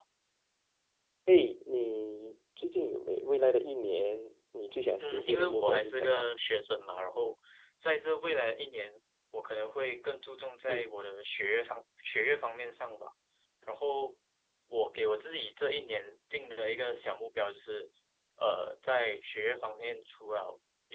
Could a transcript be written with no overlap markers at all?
No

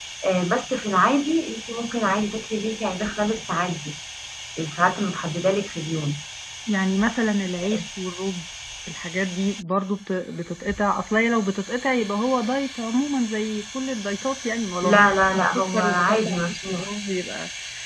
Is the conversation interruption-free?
No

